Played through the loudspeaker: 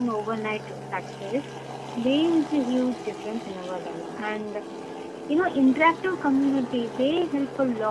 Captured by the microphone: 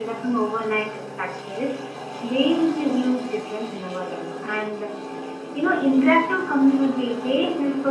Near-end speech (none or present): none